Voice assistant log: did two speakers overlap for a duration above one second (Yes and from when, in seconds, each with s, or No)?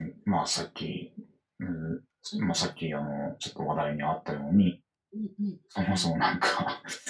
No